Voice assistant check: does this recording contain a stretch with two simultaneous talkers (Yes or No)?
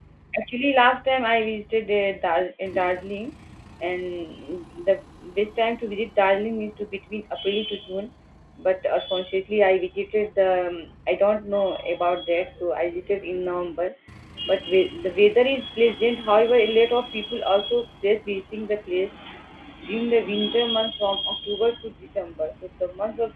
No